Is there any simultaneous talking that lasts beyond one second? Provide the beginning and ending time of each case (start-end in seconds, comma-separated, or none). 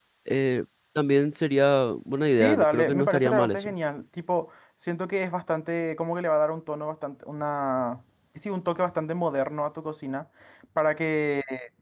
2.3-3.7